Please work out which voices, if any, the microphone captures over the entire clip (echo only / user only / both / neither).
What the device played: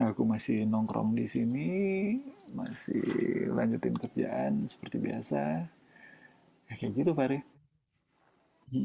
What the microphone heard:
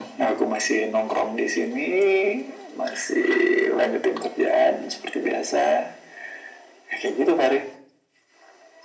echo only